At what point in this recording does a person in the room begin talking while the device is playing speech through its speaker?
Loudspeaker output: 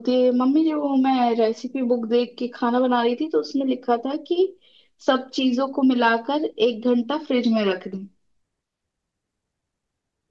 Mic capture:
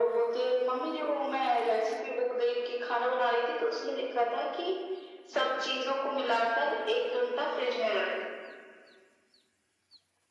none

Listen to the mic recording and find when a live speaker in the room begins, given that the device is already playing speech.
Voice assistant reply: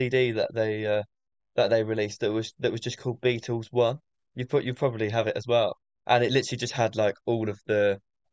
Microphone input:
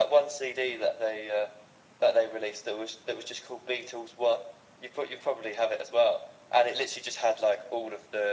none

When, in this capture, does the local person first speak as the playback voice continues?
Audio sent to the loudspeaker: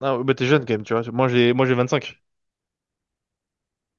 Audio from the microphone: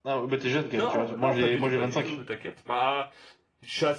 0.7 s

